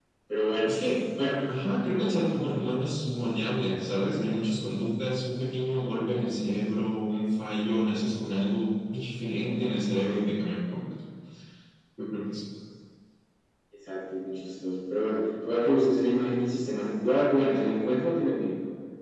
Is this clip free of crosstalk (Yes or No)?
Yes